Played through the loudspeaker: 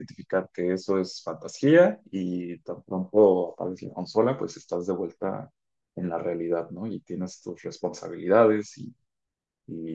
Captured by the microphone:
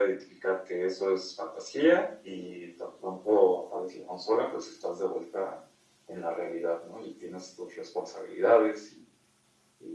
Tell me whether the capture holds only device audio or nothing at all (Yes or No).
Yes